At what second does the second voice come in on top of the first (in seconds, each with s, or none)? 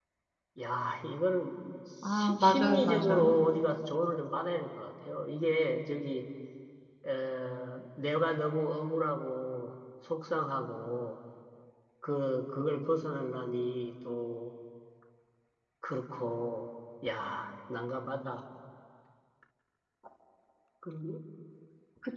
2.0 s